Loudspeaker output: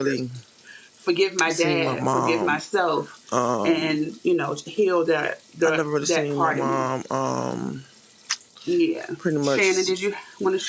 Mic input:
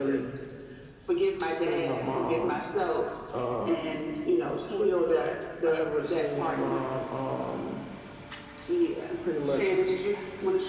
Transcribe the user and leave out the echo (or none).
Uh, Forrest Gump.